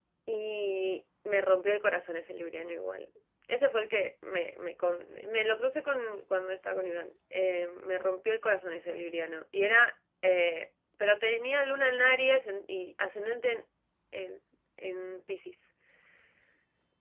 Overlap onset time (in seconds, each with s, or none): none